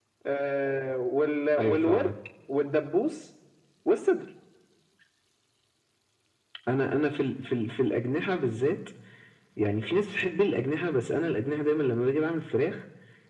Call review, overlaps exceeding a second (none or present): none